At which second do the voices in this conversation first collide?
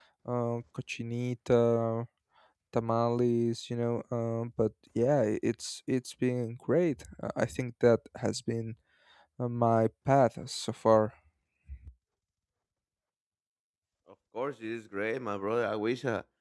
none

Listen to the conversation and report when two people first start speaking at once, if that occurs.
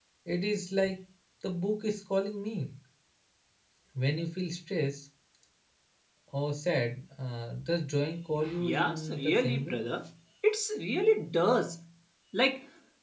9 s

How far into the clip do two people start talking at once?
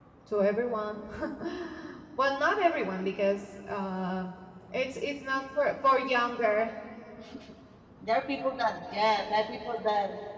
none

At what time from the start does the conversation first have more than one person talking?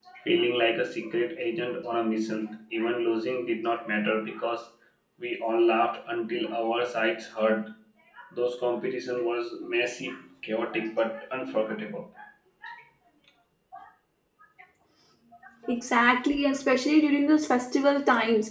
none

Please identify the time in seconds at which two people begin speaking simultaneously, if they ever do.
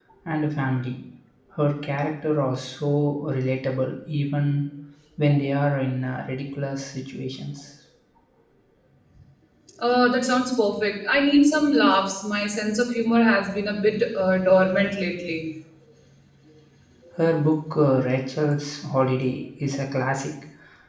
none

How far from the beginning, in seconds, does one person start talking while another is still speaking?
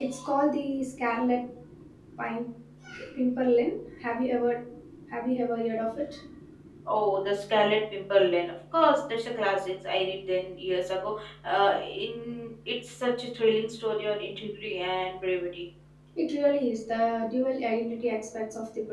none

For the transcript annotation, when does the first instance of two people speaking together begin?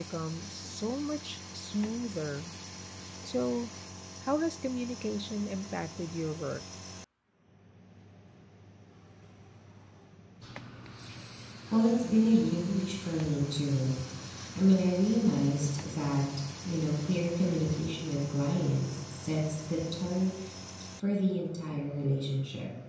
none

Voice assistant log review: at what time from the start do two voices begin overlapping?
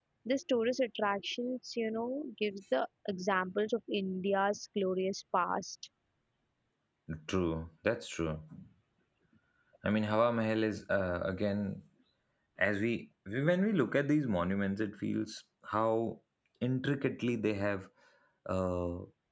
none

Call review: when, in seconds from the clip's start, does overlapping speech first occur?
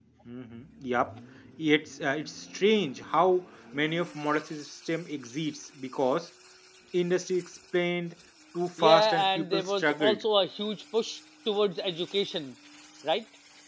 9 s

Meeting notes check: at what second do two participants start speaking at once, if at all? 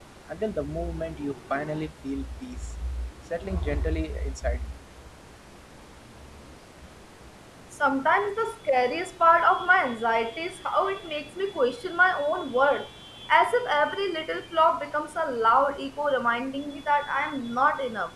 none

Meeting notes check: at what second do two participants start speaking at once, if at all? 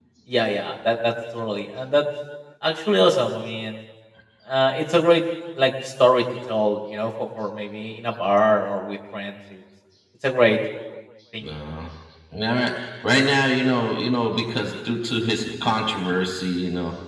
none

